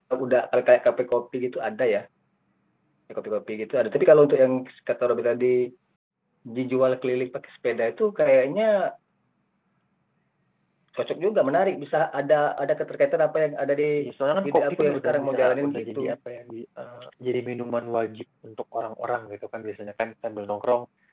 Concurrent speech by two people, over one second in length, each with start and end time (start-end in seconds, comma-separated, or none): 14.5-16.0